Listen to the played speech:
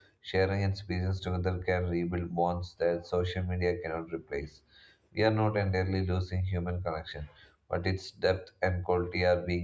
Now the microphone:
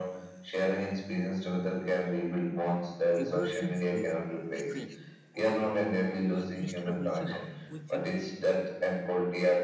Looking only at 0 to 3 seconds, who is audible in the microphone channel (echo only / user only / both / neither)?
echo only